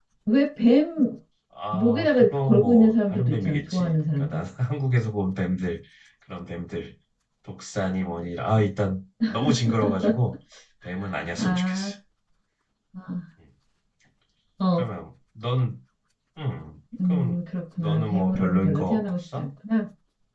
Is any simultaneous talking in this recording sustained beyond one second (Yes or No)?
Yes